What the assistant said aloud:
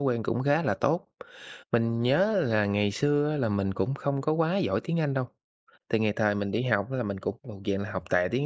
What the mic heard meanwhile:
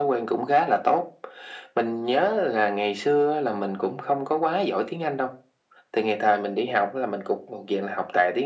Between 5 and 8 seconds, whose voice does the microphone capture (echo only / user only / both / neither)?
echo only